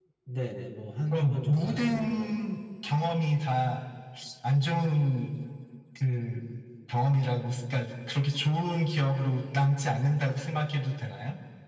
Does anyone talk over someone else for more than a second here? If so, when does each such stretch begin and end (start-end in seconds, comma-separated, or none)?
1.1-2.4